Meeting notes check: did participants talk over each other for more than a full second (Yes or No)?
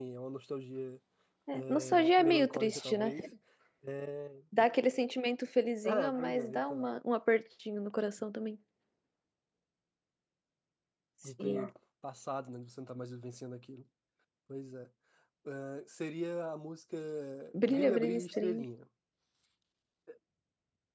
Yes